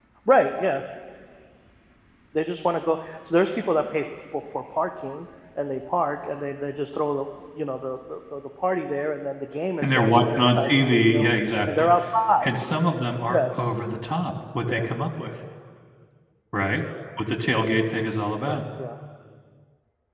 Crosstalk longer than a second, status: present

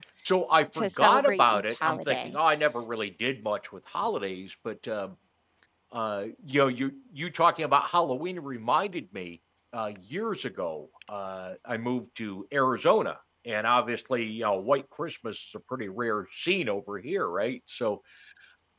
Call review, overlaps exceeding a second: present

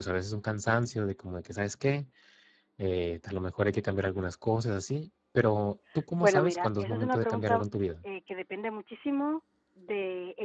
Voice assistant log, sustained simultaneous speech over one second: present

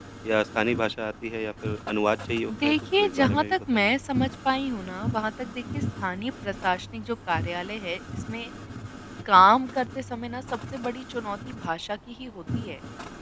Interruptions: present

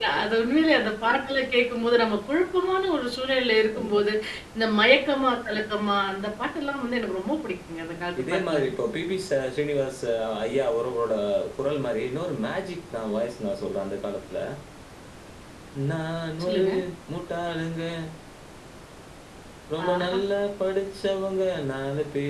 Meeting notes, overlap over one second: none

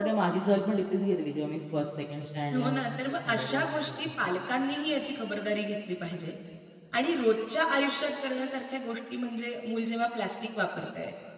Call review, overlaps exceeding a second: present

